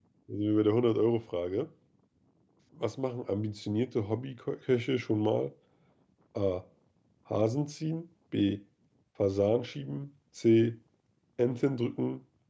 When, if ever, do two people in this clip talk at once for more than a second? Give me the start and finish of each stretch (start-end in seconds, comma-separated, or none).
none